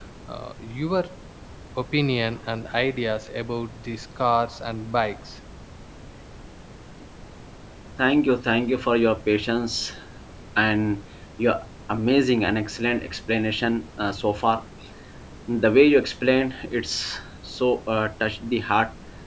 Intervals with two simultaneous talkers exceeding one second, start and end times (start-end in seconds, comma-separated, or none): none